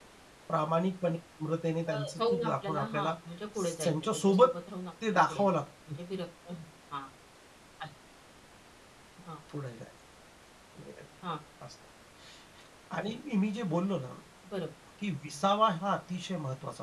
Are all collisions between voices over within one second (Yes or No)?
No